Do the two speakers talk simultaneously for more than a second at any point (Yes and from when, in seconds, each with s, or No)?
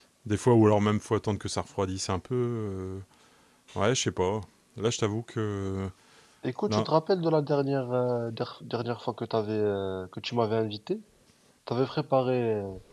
No